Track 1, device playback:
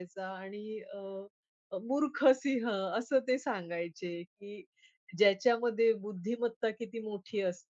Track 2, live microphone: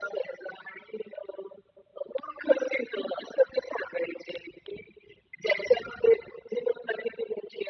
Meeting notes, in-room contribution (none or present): none